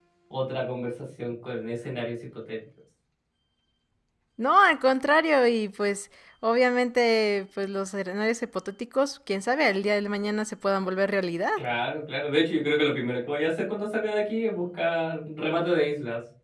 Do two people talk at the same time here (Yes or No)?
No